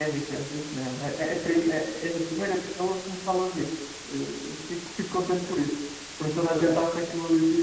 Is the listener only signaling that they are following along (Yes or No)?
Yes